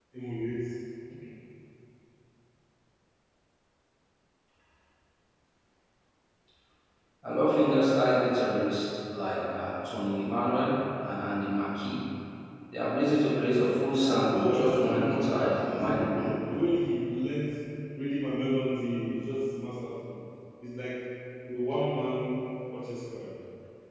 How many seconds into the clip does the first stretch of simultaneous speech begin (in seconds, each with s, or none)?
14.3 s